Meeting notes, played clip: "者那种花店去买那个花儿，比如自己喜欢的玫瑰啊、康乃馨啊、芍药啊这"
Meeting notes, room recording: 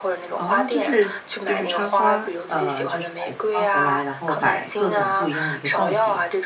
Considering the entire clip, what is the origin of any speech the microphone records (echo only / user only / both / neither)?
both